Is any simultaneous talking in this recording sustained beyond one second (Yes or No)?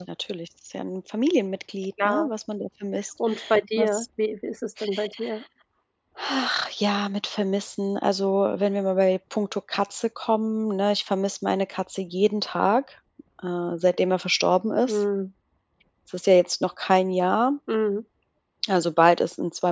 No